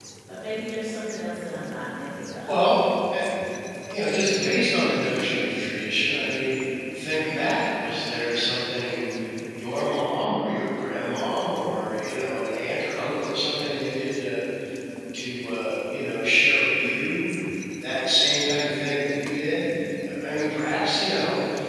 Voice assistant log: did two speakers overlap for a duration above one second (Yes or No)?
No